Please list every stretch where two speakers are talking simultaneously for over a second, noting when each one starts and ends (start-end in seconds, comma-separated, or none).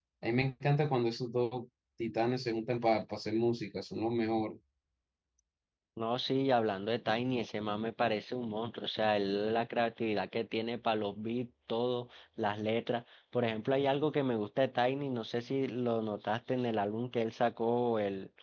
none